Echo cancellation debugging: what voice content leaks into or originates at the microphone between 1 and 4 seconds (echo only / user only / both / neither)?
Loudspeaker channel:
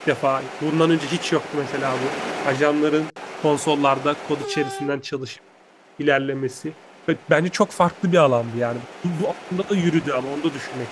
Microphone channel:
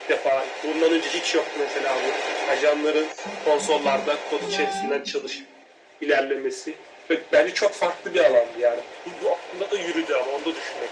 both